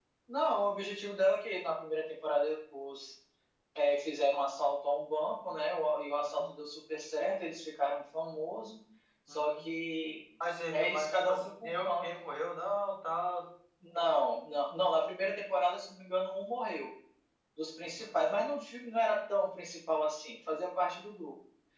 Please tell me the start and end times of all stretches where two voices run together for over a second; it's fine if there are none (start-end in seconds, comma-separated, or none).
10.7-12.1